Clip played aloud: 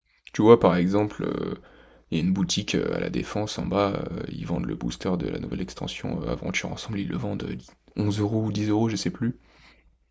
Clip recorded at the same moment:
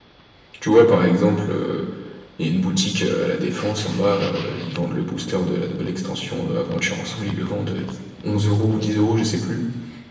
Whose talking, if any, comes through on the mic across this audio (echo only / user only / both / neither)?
echo only